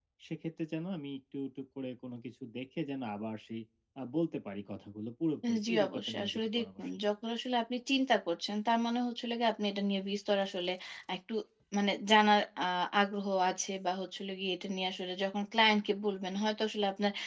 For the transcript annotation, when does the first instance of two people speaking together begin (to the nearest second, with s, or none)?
5 s